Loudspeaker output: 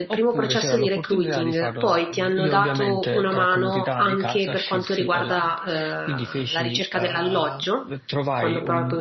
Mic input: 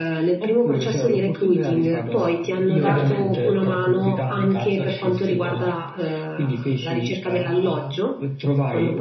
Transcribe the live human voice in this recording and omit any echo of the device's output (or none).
Certo.